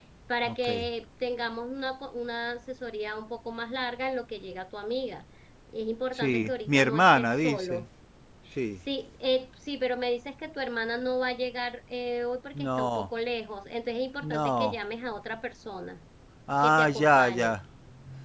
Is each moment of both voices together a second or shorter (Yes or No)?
No